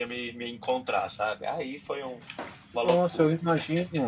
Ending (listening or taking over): taking over